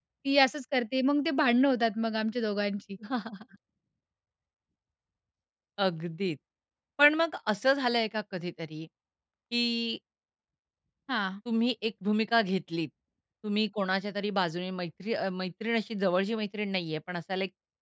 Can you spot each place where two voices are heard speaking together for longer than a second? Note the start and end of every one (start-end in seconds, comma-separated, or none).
none